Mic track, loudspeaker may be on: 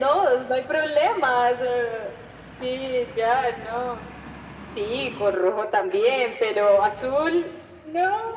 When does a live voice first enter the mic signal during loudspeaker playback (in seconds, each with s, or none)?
none